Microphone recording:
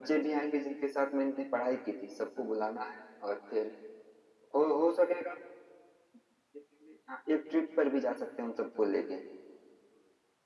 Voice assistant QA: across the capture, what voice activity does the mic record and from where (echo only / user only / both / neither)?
echo only